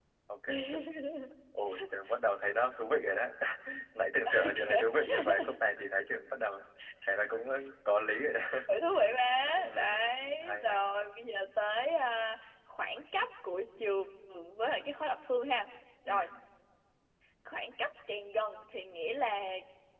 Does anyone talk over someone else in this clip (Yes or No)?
Yes